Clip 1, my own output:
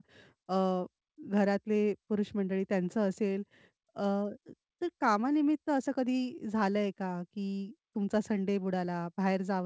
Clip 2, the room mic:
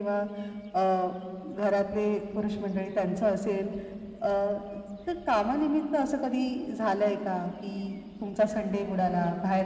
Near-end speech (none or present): none